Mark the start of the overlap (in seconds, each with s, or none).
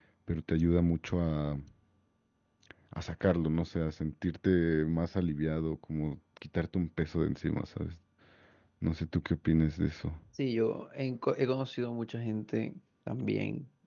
none